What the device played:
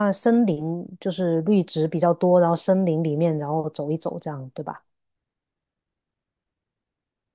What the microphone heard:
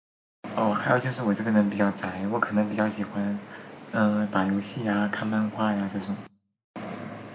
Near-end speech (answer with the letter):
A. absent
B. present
B